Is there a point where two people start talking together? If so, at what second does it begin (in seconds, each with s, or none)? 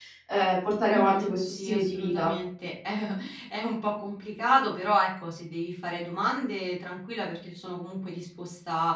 0.9 s